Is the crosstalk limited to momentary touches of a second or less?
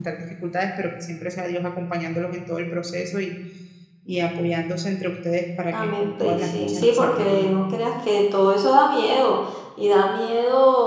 No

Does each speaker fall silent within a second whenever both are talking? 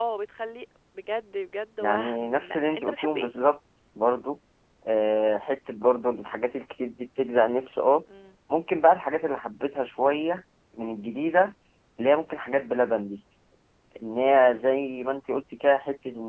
No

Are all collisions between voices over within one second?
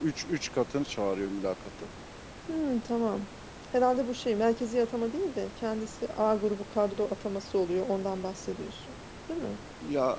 Yes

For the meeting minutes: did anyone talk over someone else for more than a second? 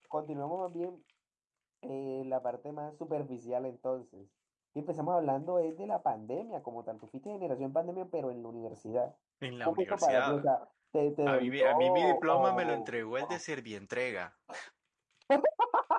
Yes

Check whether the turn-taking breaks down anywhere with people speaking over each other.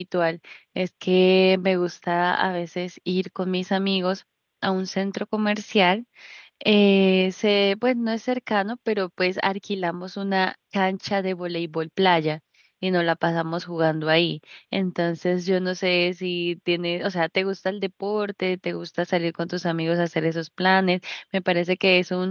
No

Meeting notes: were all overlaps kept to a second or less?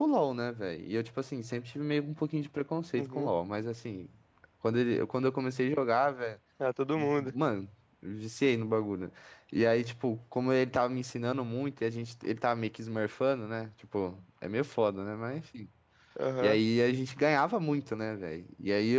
Yes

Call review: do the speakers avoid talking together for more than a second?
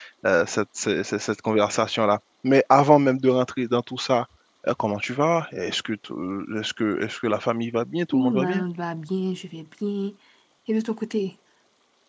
Yes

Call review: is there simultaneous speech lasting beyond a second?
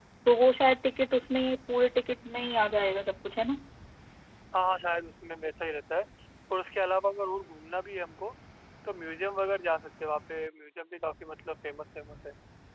No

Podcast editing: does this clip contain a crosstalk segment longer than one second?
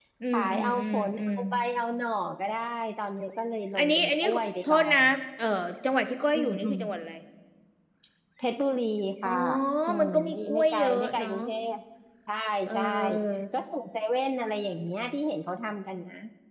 Yes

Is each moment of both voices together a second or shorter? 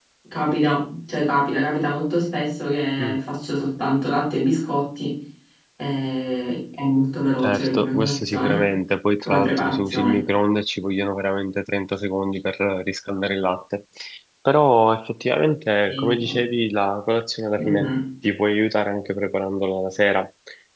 No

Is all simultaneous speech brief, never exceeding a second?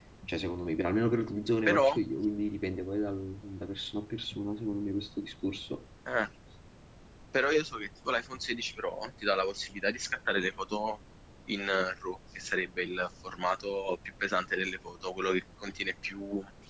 Yes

